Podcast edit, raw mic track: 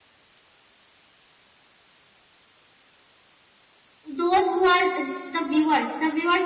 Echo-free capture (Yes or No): Yes